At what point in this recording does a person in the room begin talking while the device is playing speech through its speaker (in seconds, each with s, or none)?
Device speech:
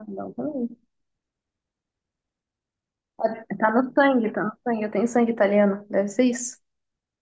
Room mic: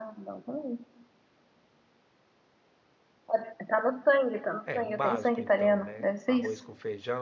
4.7 s